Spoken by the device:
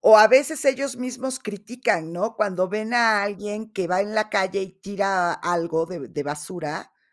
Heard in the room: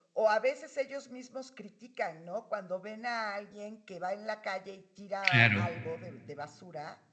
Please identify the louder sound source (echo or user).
user